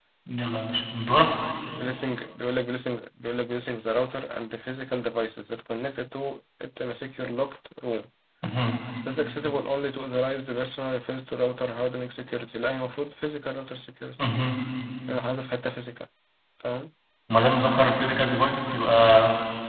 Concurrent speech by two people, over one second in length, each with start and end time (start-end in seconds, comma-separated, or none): none